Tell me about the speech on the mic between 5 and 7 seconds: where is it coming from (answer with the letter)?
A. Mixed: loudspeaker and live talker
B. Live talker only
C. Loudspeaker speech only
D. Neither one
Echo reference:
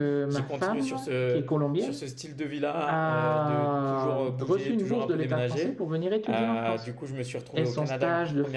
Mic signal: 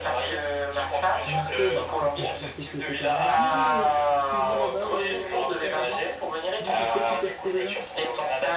A